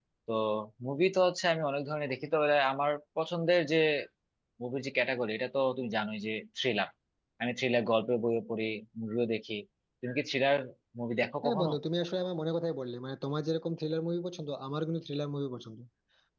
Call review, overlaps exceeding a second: none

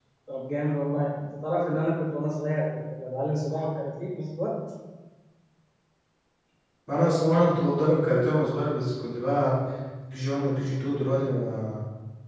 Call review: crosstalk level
none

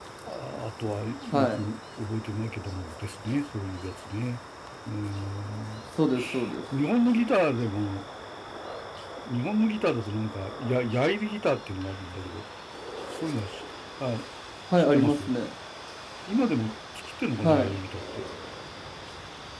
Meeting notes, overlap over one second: none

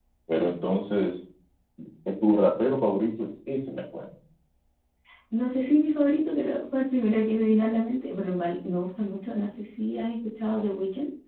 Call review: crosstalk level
none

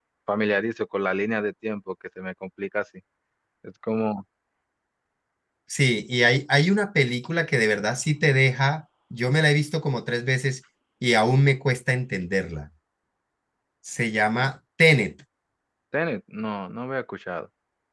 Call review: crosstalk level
none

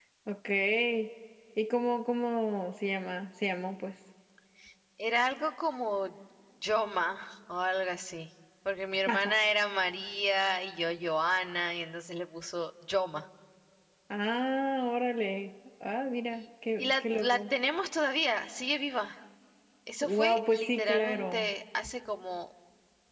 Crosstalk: present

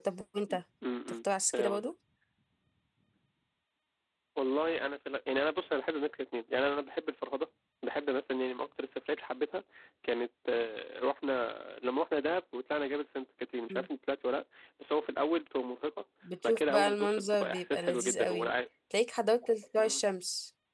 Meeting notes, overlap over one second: present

